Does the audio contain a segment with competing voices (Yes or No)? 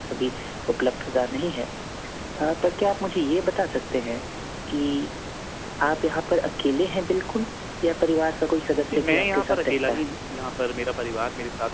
Yes